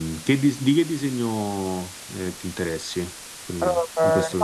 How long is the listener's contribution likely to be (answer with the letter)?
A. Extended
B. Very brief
A